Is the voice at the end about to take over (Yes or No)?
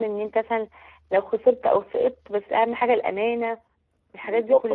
Yes